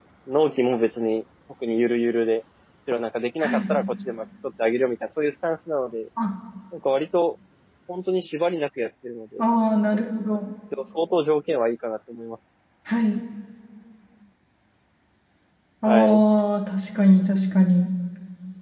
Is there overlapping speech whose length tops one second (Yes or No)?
No